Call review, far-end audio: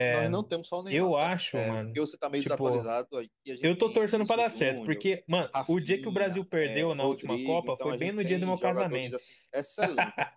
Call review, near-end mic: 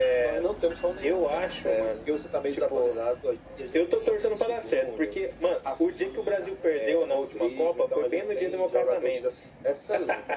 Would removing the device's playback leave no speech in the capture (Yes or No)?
Yes